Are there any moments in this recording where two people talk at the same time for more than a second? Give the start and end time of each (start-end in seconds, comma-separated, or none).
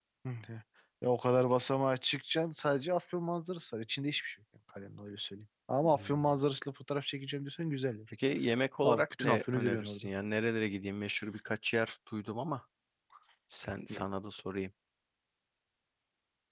8.8-10.1